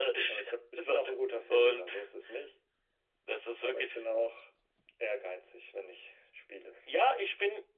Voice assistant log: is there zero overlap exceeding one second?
Yes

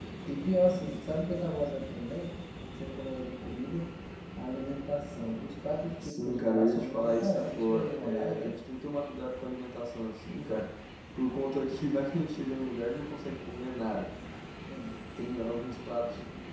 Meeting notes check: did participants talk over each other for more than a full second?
Yes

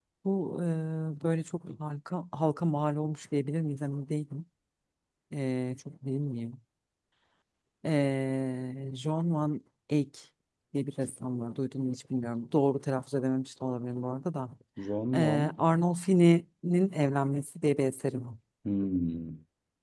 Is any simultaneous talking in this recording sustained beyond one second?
No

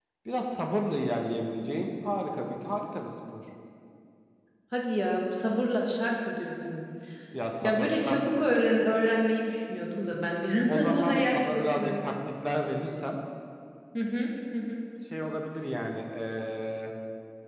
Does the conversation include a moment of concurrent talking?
Yes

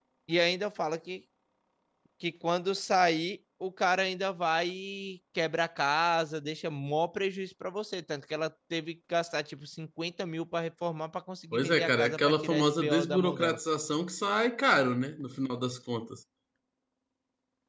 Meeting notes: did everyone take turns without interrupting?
No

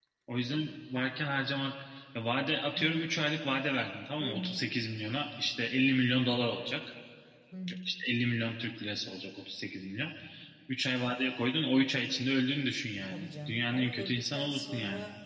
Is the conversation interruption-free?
No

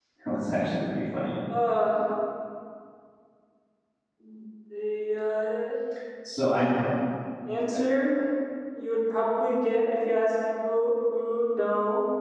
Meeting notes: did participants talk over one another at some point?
No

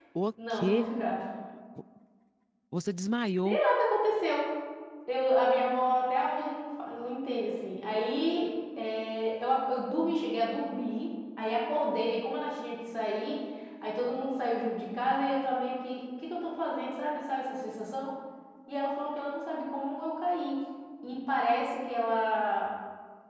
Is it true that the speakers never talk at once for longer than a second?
Yes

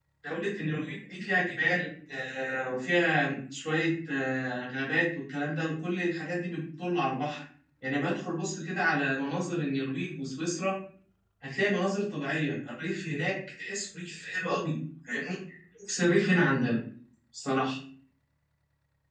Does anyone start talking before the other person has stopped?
No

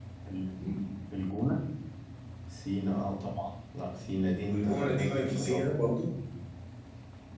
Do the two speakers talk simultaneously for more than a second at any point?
Yes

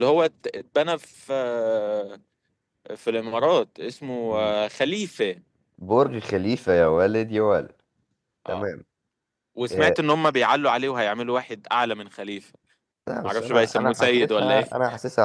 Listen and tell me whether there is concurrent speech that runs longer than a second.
Yes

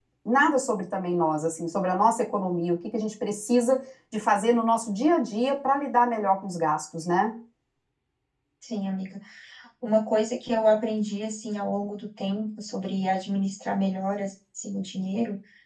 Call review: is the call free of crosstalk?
Yes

